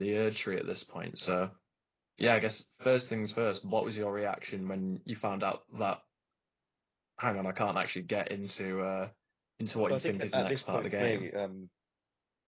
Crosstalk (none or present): present